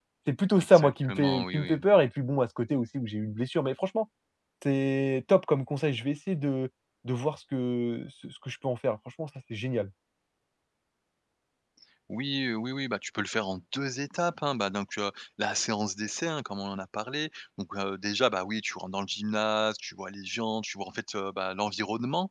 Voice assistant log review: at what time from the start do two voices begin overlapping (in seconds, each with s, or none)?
0.6 s